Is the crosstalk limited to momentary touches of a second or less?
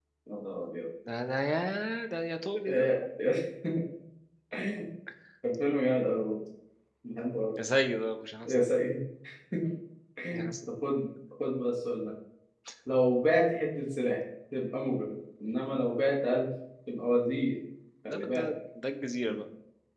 Yes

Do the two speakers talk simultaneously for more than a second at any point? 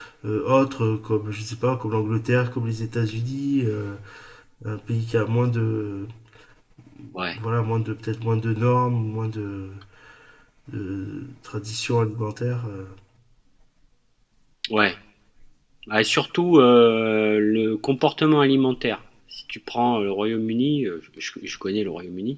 No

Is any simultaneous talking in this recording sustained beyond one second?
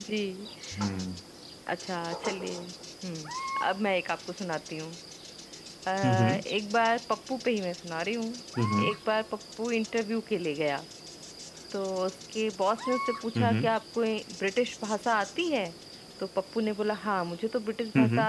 No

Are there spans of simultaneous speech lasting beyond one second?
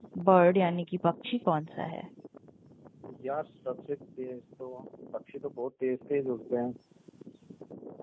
No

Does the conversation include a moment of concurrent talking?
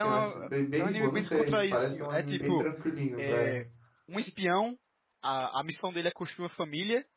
Yes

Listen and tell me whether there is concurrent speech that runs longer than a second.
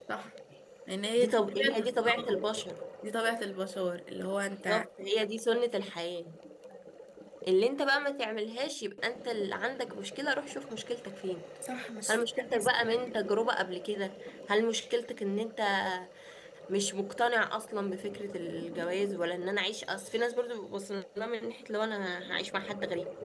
Yes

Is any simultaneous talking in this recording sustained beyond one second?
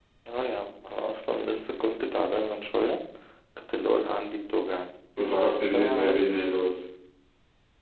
No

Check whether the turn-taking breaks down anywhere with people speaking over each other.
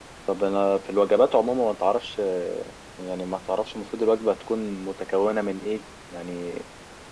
No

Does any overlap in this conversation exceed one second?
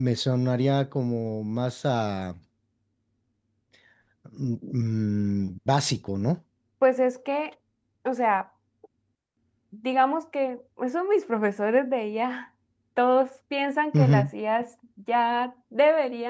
No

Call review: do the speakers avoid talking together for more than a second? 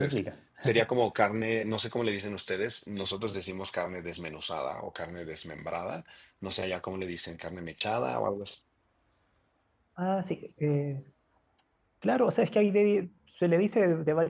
Yes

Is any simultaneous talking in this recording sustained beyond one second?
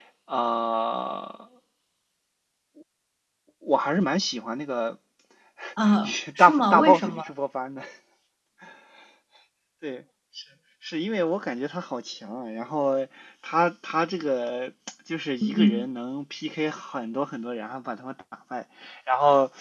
Yes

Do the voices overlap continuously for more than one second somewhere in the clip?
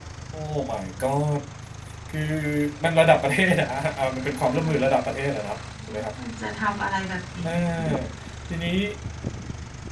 No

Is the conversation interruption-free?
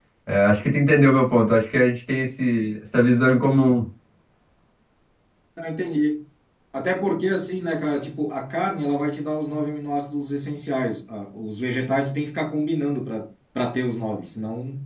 Yes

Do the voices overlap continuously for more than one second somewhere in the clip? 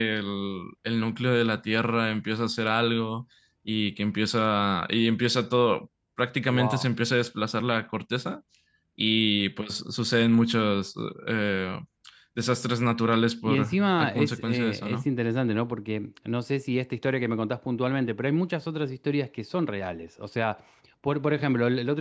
Yes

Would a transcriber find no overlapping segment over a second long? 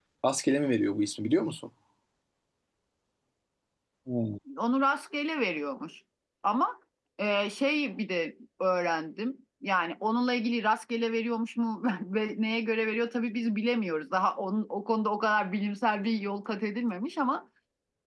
Yes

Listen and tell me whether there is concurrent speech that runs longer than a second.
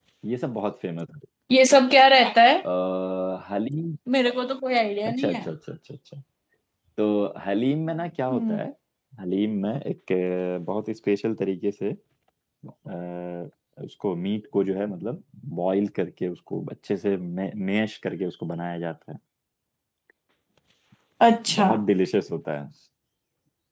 No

